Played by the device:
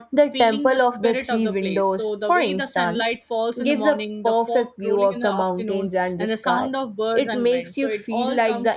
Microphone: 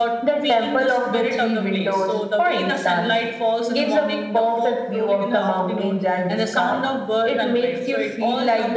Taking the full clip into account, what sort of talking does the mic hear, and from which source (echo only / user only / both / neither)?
echo only